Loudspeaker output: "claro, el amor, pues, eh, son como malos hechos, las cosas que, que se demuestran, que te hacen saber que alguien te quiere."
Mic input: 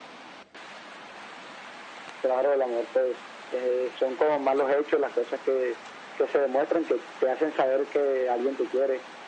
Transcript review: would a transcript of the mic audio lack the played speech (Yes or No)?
No